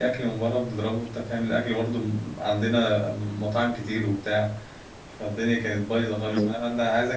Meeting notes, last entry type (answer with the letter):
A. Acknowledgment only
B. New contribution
A